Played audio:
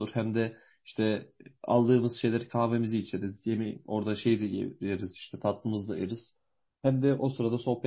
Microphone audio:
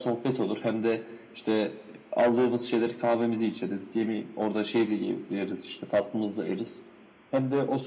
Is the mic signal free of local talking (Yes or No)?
Yes